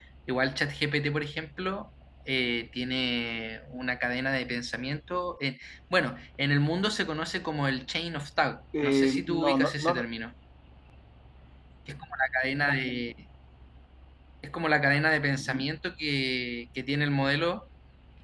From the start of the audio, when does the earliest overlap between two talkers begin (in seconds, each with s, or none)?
8.8 s